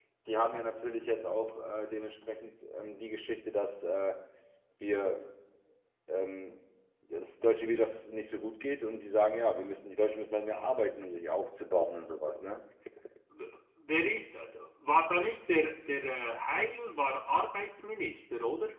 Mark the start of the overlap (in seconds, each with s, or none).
none